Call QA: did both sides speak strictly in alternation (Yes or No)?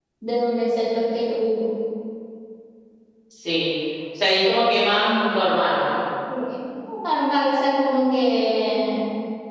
Yes